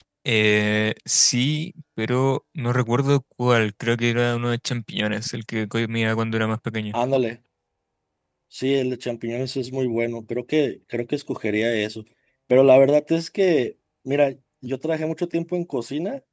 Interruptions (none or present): none